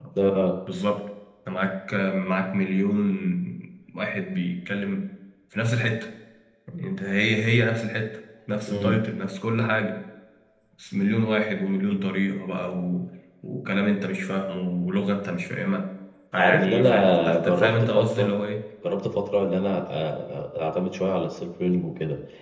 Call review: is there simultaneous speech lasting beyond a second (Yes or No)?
Yes